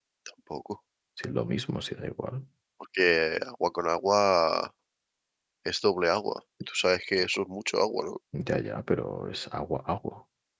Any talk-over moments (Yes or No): No